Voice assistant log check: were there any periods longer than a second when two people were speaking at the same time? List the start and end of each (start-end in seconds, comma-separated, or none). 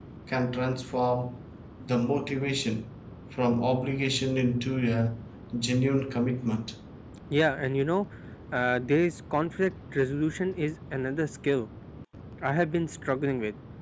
none